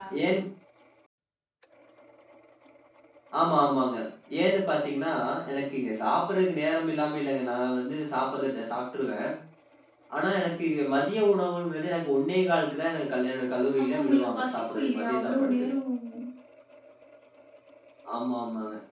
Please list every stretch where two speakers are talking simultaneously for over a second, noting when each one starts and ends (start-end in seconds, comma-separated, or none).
13.9-15.7